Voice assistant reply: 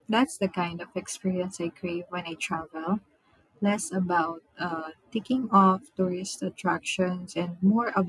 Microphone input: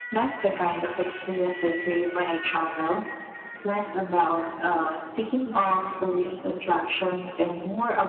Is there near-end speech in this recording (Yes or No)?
No